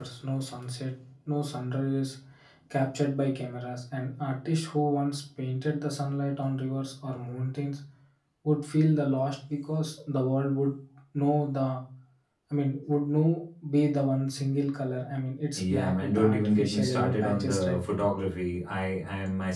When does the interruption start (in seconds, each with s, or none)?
15.5 s